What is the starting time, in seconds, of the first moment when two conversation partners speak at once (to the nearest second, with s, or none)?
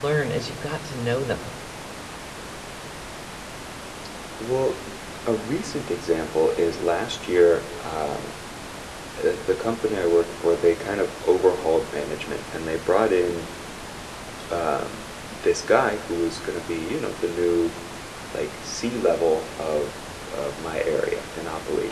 none